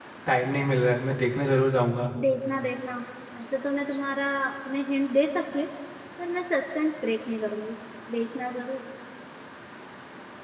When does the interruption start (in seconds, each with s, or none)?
none